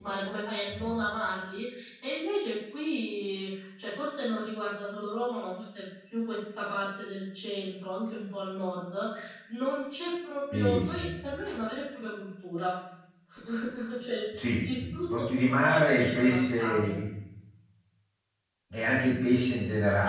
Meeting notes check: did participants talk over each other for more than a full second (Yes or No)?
Yes